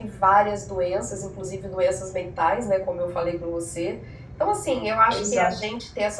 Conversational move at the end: listening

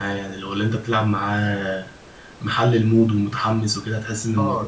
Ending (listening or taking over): taking over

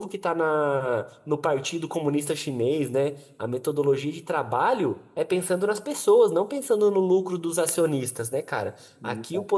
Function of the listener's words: listening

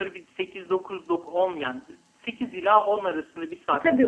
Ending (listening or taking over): taking over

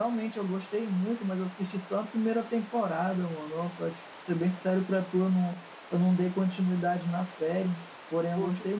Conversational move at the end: listening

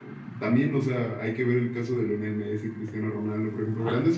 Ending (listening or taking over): listening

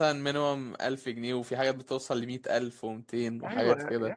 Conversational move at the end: taking over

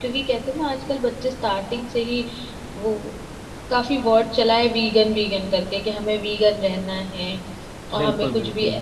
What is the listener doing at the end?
listening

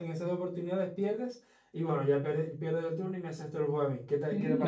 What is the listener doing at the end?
taking over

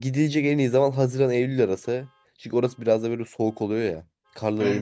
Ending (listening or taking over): listening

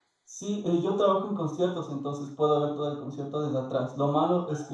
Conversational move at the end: listening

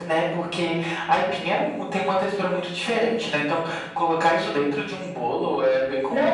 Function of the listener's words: taking over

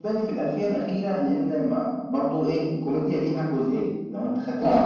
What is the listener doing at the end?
listening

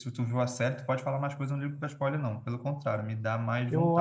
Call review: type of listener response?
taking over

